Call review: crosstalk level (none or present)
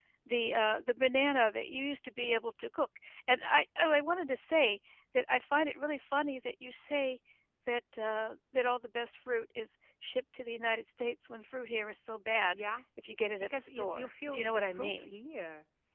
present